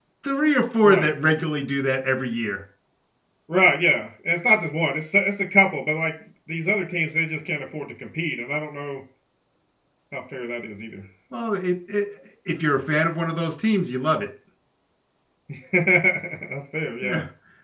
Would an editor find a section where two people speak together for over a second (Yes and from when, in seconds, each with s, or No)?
No